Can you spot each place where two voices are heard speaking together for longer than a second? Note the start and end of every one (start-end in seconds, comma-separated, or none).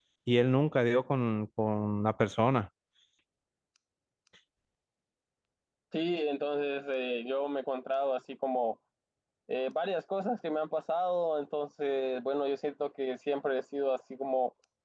none